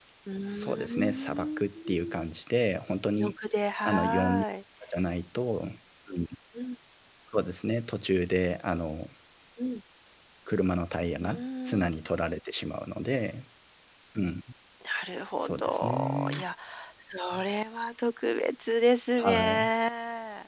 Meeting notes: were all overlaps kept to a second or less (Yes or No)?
No